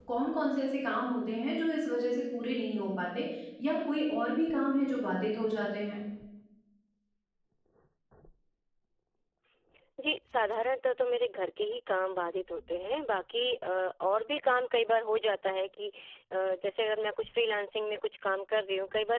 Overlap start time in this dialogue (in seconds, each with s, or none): none